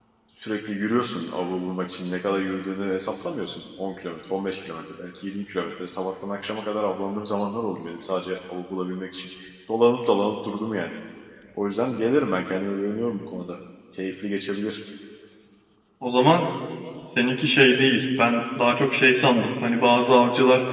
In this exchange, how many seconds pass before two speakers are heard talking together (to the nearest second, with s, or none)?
none